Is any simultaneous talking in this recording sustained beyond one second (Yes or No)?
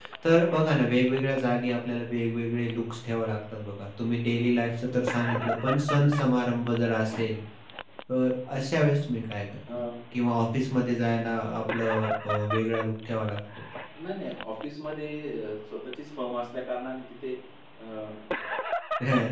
No